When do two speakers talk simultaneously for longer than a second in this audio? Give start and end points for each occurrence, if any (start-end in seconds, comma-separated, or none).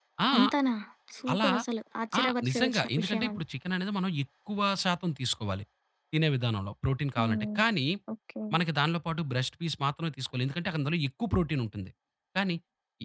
2.2-3.4